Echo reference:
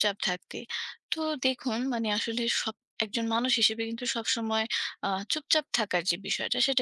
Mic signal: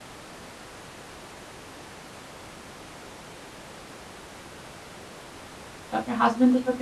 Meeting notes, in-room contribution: present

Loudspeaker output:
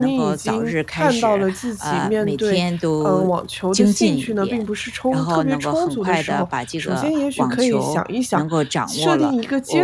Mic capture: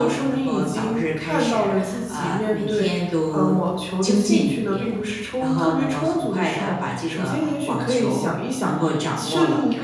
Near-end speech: none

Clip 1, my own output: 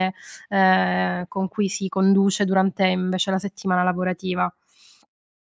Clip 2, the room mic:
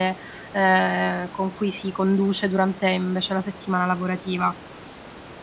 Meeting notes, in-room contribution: none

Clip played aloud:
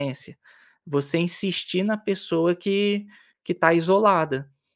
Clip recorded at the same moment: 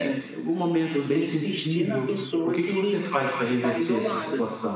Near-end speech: present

